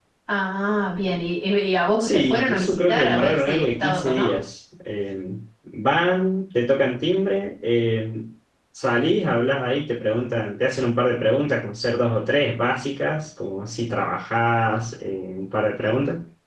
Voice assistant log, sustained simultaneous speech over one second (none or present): present